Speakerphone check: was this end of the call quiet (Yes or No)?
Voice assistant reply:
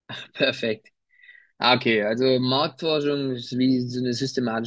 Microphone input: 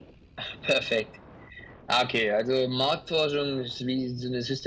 Yes